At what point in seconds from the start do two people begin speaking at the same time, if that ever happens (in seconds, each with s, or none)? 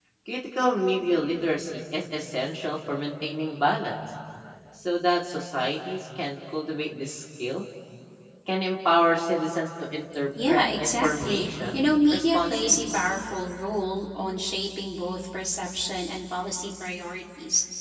10.4 s